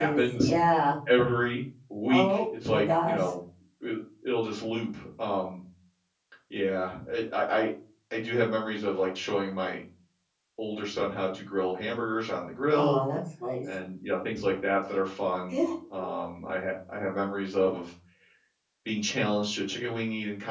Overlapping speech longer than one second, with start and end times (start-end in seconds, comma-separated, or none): 2.1-3.3